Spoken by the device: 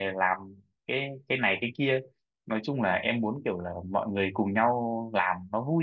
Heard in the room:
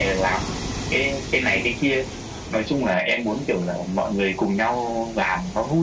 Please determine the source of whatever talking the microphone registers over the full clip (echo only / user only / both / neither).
echo only